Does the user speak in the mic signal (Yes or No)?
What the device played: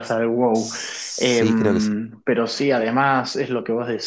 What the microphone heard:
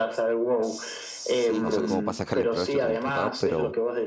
Yes